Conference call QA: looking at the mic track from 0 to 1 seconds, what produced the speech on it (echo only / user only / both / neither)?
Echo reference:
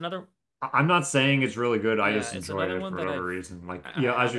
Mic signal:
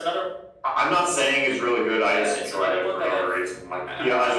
echo only